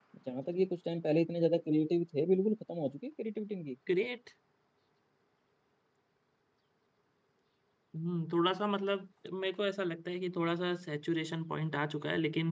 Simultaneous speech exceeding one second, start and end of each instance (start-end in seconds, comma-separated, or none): none